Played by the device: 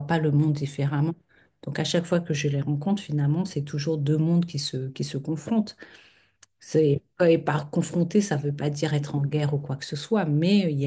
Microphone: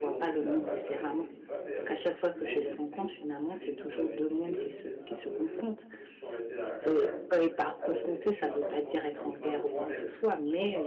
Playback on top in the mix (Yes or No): Yes